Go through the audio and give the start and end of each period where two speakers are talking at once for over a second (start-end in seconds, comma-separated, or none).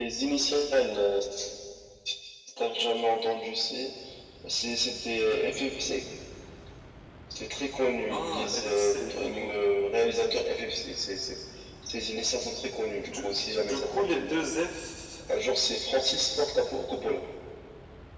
8.1-9.7, 13.1-14.4